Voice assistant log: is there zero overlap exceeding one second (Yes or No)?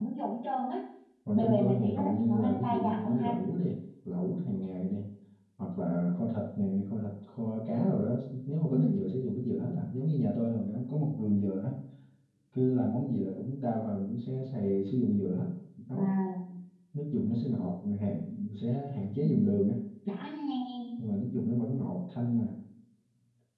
No